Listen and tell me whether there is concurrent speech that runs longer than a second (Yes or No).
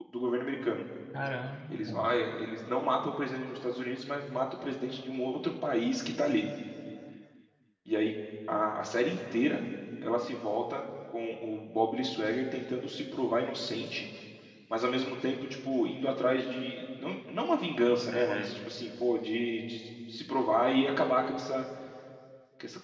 No